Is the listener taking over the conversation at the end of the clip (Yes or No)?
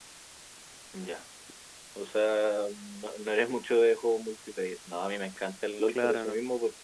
No